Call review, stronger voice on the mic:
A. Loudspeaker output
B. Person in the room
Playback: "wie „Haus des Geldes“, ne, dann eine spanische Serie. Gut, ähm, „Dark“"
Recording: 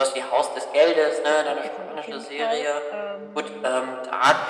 A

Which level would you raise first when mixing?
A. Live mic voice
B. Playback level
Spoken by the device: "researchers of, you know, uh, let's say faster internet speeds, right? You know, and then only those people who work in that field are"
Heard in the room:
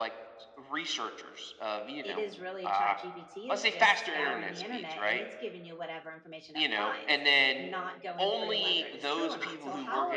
A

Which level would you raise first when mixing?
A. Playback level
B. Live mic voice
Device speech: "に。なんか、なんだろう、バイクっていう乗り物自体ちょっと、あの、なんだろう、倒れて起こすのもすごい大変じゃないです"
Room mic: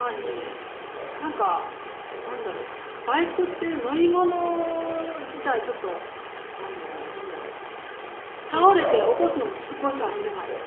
B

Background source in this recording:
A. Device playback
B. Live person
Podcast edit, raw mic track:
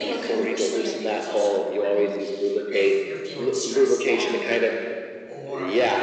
B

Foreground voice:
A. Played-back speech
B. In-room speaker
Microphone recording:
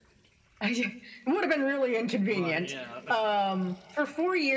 A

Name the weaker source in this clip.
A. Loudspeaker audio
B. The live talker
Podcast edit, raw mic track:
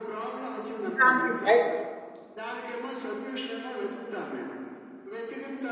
A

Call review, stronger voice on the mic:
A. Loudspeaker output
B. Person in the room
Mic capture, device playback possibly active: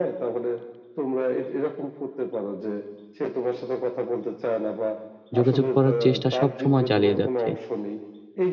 B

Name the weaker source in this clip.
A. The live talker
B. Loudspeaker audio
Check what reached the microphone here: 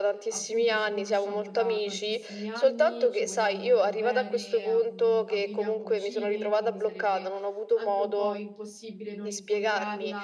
A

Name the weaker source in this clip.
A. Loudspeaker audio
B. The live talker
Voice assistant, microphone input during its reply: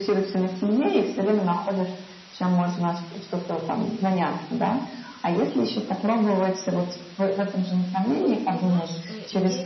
B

